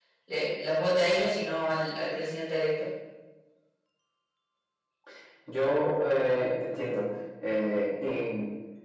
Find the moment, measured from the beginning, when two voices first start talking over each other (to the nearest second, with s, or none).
none